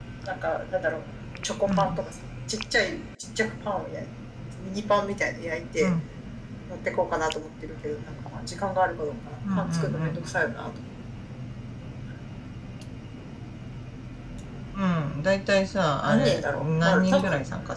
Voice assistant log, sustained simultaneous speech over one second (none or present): present